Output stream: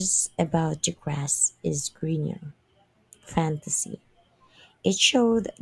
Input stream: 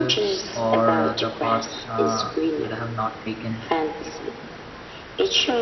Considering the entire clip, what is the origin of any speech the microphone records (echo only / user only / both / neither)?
both